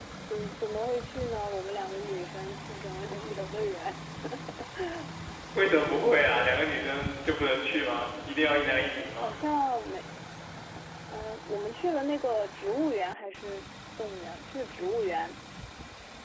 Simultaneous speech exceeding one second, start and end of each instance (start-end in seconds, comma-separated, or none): none